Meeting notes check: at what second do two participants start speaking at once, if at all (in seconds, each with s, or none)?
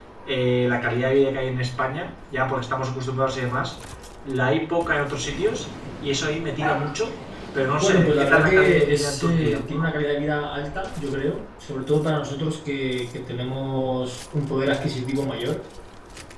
7.8 s